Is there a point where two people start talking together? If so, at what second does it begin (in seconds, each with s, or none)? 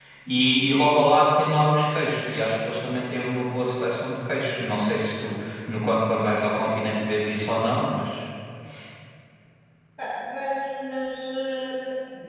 none